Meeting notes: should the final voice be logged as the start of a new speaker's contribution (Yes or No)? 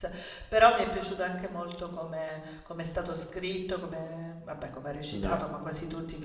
No